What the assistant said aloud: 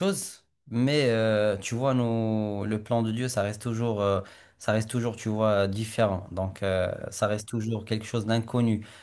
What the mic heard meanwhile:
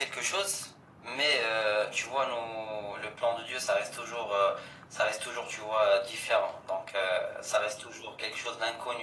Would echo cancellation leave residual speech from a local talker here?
No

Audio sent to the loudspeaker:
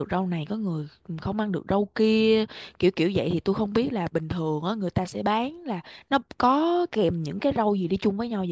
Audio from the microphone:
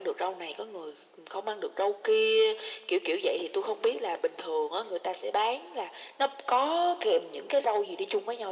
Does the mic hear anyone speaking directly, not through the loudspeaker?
No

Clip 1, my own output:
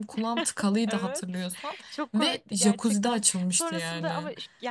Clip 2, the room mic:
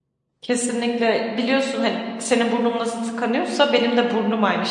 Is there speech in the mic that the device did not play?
Yes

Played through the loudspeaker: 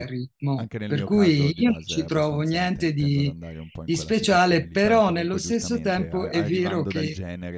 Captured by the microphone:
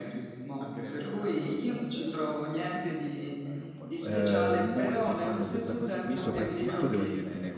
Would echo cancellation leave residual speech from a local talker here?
Yes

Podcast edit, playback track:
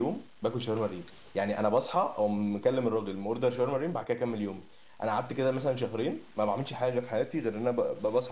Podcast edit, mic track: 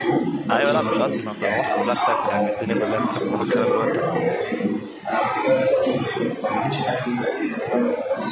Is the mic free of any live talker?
No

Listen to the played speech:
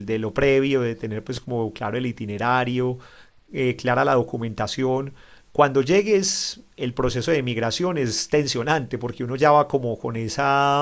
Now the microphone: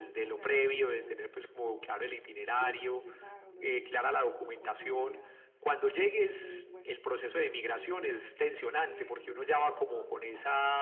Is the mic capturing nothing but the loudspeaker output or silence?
No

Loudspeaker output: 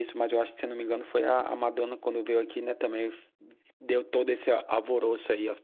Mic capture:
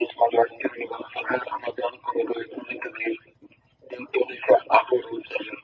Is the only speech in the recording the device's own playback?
Yes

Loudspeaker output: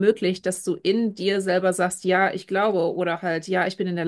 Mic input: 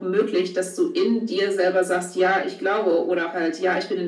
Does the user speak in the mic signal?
No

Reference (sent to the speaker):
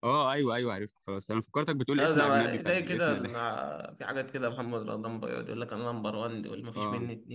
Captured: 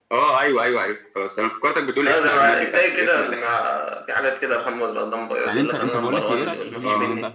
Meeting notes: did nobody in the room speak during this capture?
No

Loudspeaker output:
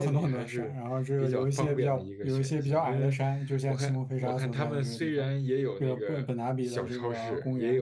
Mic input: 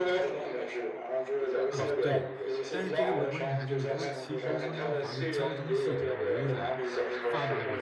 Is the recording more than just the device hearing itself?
Yes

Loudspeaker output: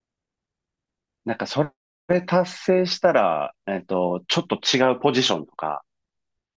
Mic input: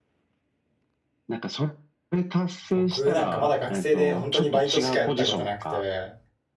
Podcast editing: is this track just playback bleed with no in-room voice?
No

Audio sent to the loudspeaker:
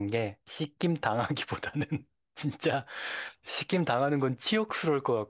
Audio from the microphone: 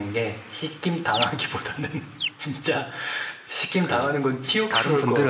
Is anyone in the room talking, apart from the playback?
Yes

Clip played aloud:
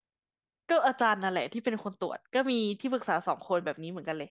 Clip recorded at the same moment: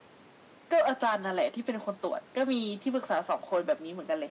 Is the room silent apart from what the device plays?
Yes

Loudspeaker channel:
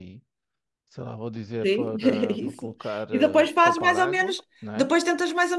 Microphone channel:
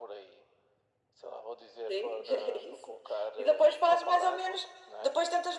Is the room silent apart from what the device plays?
Yes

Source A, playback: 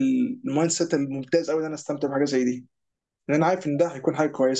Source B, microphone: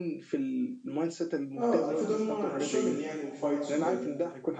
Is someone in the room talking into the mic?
Yes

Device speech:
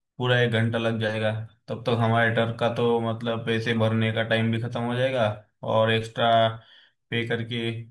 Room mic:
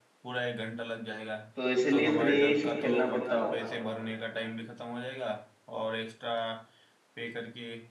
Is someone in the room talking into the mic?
Yes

